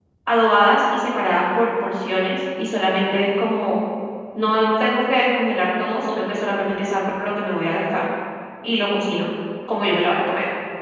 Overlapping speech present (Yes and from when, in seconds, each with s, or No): No